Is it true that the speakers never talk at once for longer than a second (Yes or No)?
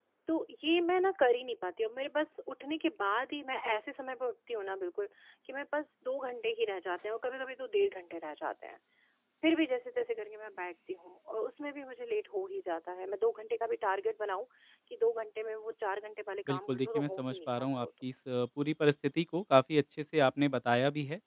No